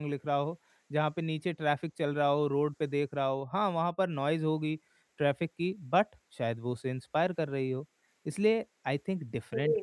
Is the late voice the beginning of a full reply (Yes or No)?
No